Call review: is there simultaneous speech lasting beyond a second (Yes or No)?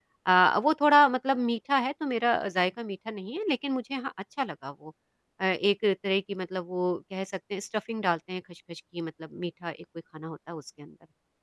No